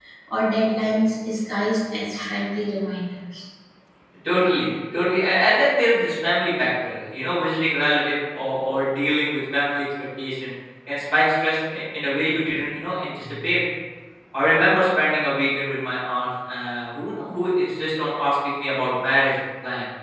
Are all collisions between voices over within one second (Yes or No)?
Yes